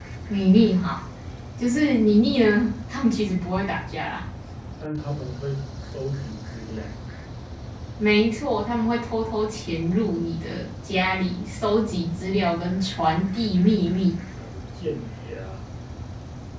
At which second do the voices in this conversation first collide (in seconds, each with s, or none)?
none